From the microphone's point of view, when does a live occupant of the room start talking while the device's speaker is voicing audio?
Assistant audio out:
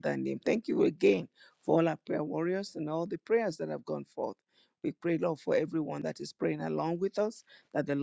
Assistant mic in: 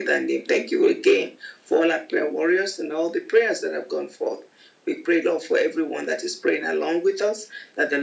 none

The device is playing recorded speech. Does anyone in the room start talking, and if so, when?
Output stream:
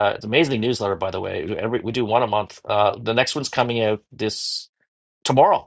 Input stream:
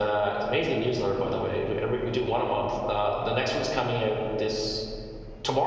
none

